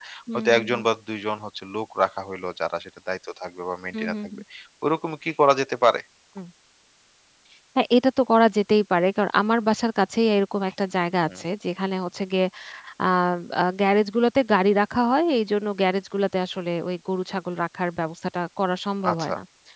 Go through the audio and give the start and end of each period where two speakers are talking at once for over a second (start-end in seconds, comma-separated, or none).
none